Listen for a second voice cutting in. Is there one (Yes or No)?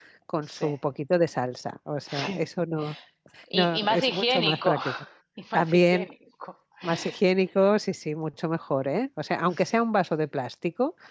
Yes